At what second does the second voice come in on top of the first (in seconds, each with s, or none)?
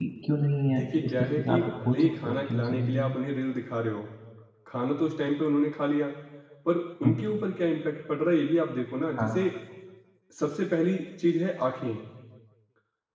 0.7 s